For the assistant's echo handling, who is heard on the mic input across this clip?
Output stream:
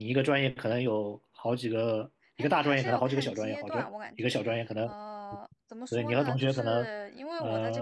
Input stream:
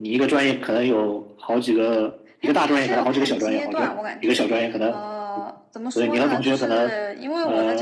echo only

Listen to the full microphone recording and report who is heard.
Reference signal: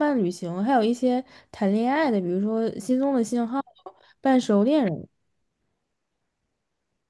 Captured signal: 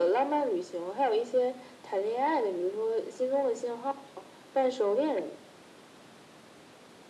echo only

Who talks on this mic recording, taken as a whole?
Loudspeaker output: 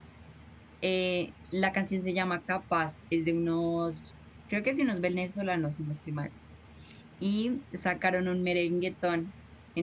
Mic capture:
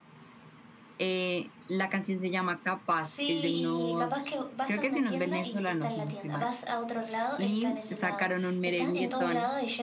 both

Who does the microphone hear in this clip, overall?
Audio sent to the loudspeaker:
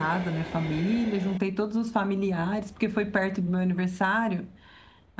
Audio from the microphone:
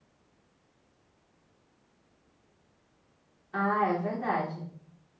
user only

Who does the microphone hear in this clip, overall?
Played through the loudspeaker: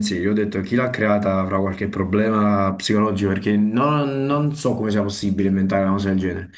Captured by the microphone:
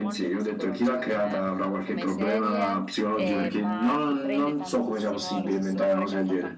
both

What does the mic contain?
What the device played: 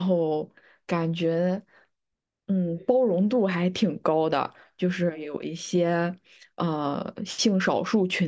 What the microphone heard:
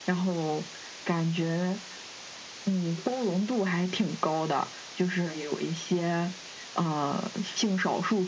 echo only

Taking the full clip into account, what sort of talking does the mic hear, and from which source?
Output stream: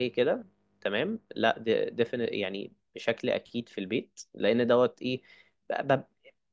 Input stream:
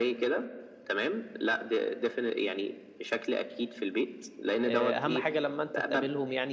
both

